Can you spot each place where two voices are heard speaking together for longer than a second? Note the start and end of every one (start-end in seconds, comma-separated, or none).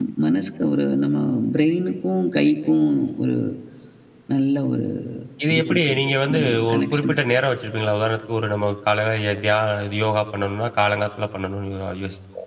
5.5-7.1